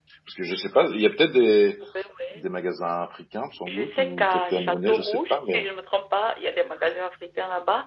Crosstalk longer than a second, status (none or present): present